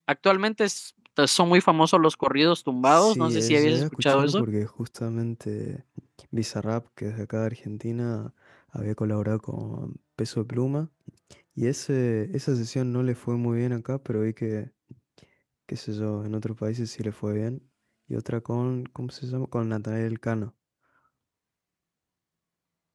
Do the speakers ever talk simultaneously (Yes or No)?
Yes